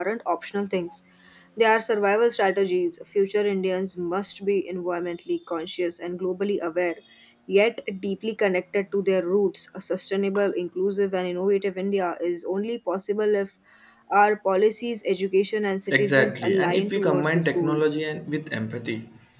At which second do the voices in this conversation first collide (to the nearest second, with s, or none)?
16 s